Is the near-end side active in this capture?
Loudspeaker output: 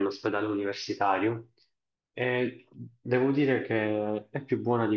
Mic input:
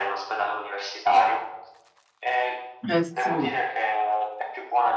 Yes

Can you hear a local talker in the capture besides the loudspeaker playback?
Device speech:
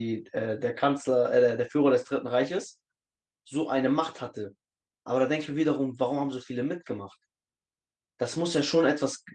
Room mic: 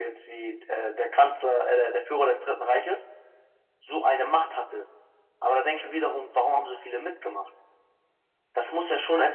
No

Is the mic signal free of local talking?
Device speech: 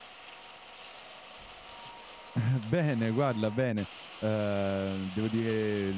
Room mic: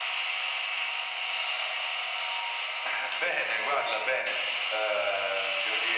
Yes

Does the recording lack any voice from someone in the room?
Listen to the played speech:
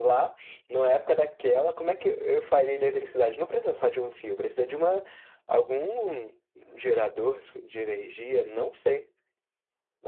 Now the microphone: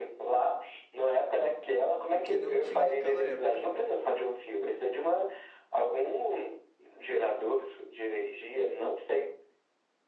No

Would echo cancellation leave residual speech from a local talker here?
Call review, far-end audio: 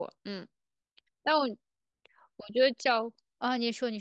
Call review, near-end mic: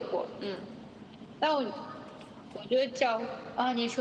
No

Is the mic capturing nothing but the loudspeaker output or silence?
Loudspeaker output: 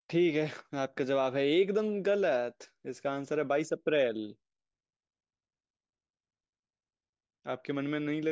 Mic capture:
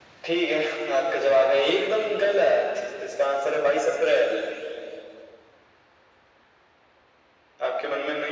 Yes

